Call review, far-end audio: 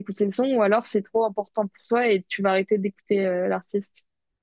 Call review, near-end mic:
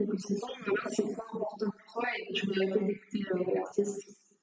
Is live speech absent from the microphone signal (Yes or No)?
Yes